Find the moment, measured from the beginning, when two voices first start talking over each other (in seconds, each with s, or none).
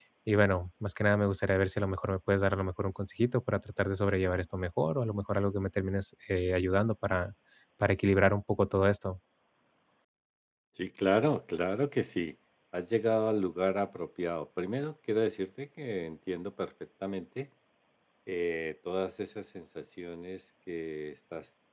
none